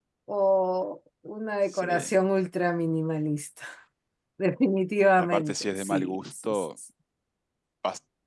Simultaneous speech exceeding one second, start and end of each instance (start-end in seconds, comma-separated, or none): 5.2-6.7